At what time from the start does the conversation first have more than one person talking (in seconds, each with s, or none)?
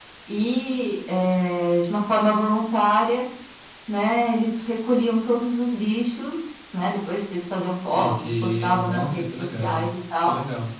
7.9 s